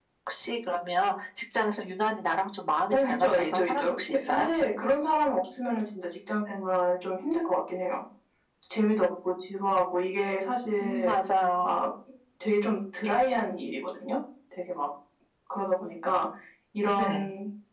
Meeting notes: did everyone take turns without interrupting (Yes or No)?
No